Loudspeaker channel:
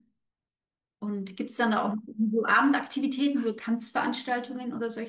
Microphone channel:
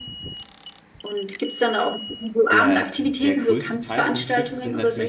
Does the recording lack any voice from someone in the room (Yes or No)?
No